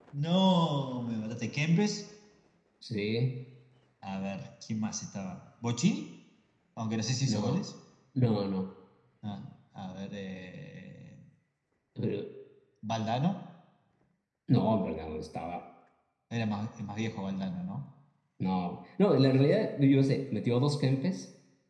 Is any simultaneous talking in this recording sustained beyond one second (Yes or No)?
No